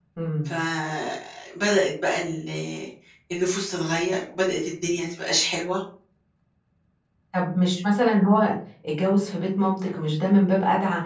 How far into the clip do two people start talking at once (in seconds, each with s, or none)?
none